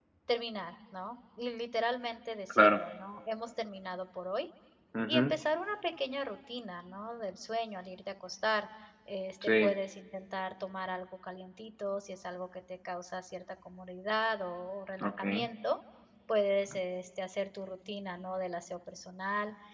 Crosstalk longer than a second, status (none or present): none